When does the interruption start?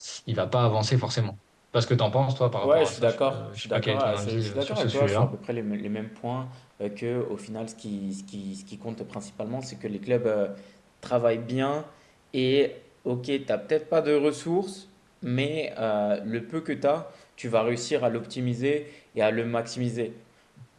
2.6 s

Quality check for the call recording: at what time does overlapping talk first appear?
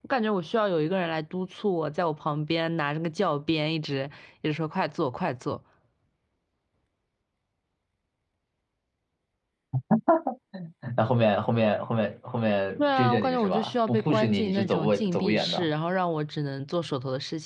12.8 s

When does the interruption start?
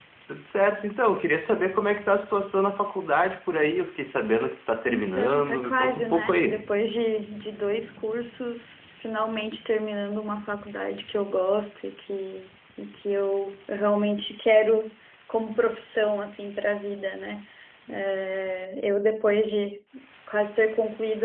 4.9 s

